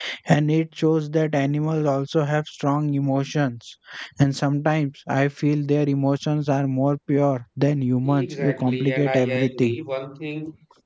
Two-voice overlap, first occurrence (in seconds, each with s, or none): 8.0 s